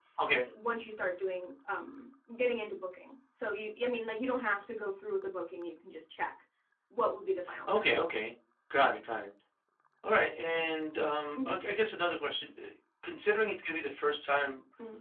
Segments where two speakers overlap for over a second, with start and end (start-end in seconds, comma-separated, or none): none